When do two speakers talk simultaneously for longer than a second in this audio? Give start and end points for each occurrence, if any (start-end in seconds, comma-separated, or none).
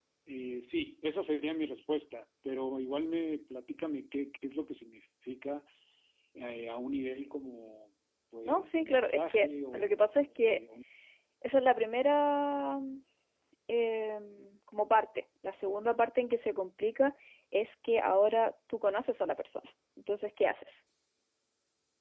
8.4-10.6